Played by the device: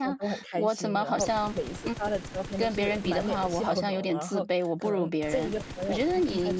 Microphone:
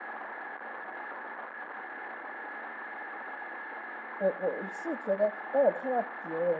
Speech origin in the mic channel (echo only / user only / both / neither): user only